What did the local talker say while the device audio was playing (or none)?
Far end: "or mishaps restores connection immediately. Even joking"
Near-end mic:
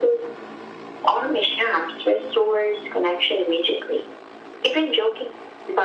none